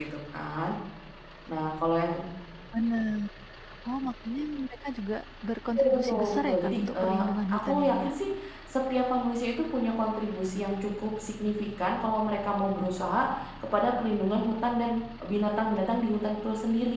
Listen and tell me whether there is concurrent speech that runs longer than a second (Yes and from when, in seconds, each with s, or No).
Yes, from 5.8 s